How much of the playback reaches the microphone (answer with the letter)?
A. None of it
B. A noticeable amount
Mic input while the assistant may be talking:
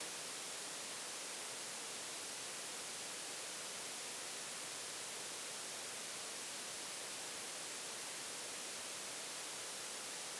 A